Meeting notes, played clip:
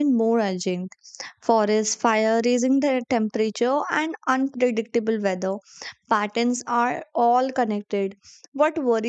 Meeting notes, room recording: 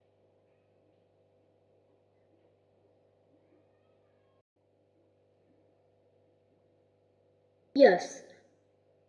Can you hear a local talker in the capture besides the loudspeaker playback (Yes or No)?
Yes